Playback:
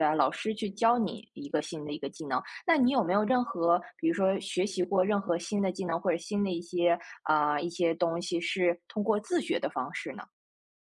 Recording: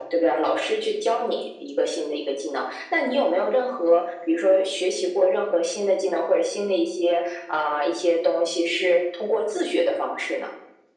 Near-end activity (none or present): none